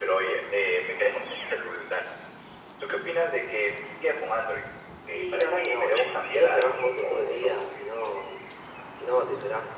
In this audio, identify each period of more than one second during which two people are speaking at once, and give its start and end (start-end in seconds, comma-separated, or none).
5.1-7.5